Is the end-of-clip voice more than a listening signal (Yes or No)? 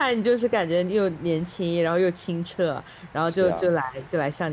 No